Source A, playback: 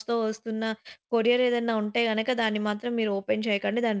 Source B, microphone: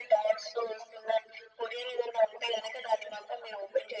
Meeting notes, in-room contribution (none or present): none